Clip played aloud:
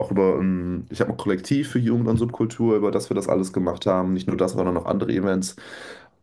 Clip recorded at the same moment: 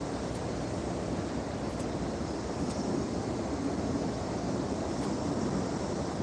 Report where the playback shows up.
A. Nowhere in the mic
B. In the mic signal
A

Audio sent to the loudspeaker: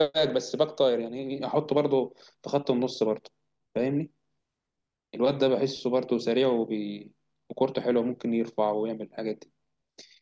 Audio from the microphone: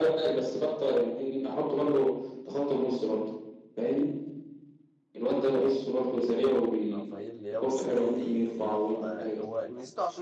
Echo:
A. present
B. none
A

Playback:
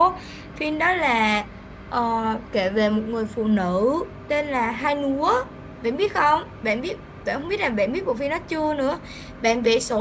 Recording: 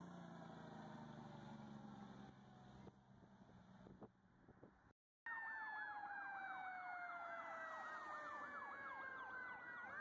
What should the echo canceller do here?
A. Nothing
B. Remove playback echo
A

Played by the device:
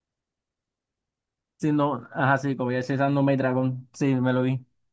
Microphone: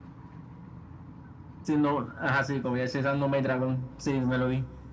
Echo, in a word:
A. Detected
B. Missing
A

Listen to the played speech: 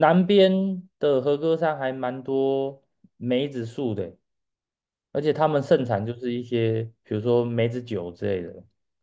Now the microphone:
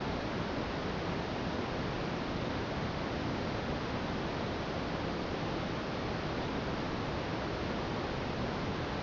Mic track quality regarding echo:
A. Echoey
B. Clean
B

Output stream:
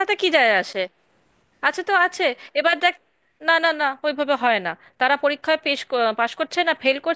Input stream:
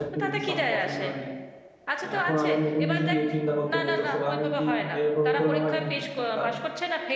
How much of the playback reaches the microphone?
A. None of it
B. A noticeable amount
B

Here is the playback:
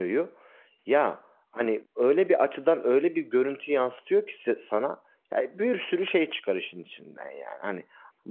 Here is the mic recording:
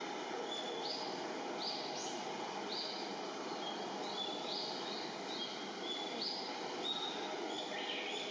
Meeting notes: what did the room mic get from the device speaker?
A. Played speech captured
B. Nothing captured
B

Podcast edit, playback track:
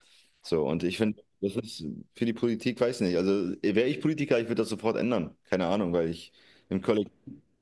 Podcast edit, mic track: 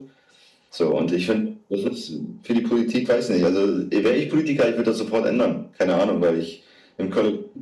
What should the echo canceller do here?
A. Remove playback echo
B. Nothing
A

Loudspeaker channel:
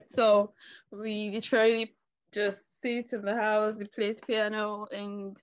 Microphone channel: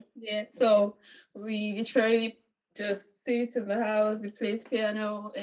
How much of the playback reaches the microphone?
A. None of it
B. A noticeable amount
B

